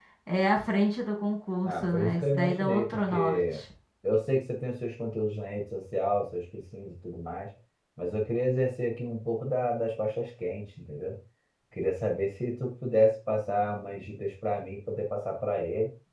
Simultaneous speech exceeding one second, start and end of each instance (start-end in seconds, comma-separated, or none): 1.6-3.6